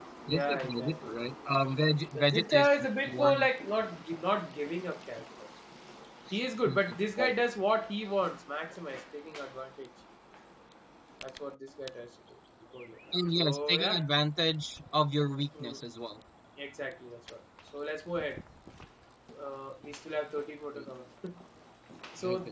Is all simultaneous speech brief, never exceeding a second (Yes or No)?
No